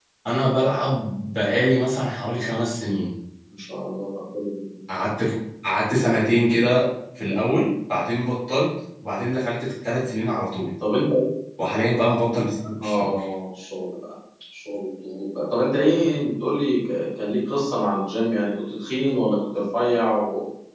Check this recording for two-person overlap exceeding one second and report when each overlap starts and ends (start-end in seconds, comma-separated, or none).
none